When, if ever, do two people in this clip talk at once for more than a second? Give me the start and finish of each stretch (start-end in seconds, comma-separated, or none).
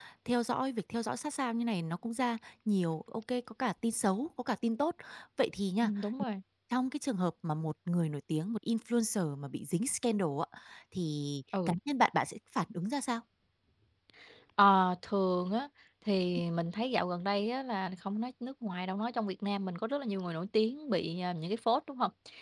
none